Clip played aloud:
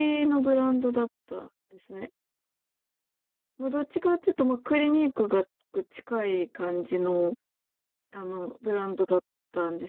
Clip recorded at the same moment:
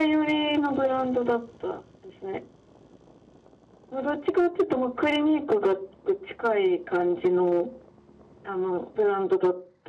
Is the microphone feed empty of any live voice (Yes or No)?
Yes